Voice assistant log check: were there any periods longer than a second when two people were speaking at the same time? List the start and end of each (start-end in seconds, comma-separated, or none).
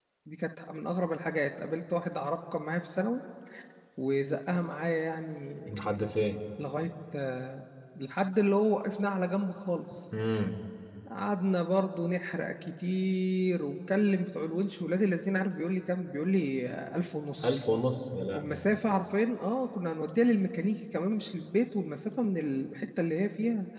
none